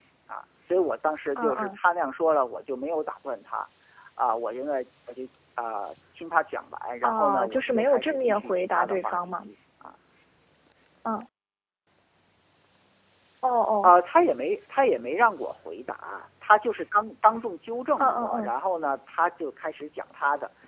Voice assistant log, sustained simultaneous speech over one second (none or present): present